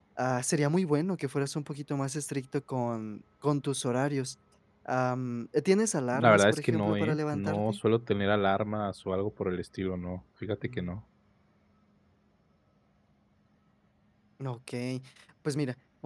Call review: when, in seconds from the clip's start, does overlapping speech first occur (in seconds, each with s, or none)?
6.1 s